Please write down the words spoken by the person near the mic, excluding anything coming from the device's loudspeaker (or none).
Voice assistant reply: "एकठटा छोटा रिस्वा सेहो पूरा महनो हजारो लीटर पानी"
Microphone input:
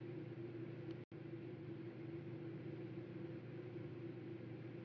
none